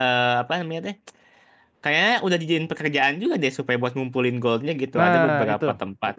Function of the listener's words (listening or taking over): taking over